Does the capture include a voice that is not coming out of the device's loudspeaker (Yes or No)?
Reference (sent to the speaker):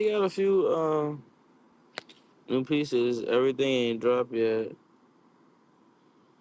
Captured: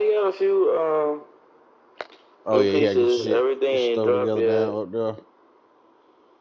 Yes